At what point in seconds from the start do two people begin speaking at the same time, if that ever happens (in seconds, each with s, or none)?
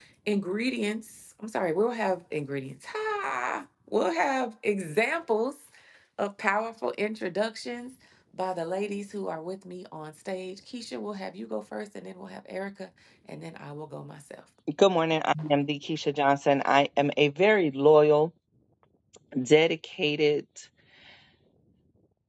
none